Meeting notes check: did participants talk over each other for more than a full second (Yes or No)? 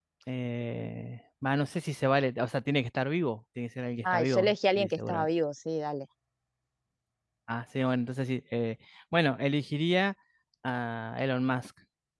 Yes